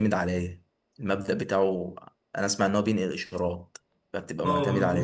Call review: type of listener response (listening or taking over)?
taking over